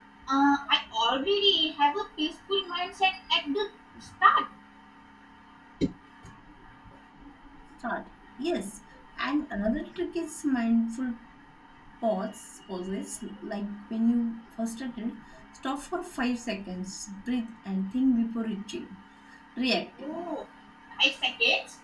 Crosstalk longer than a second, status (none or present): none